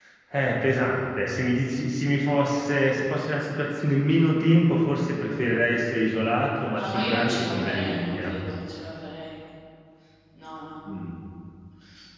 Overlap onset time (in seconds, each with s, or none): 6.7 s